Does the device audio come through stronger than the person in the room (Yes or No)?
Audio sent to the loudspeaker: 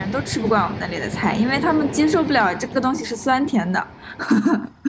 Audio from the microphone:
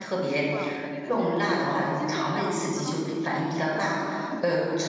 No